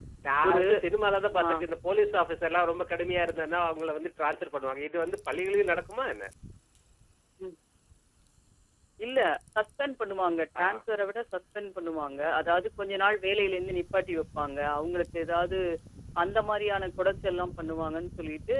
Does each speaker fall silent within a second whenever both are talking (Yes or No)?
Yes